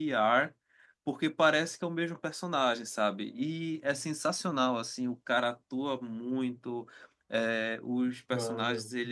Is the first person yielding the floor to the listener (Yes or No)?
No